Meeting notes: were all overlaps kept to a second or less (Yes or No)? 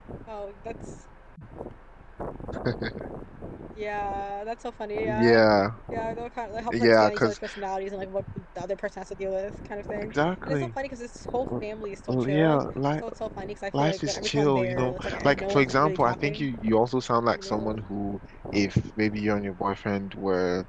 No